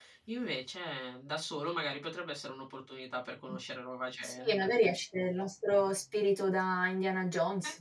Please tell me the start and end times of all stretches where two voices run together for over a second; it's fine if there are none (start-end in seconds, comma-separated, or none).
none